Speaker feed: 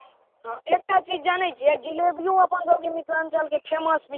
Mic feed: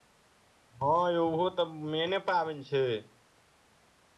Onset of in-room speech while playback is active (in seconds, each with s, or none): 0.8 s